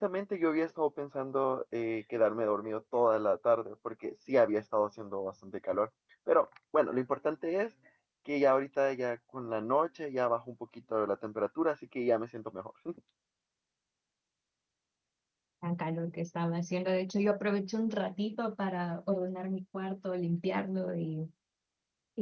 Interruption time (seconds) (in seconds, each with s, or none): none